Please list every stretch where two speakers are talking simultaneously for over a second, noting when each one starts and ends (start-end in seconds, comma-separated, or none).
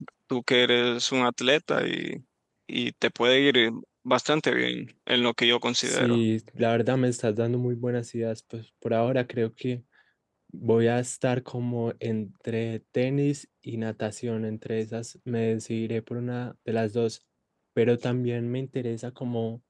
none